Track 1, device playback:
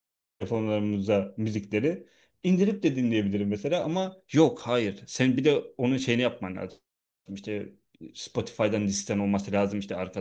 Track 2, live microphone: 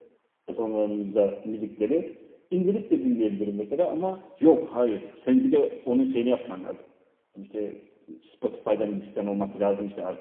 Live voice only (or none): none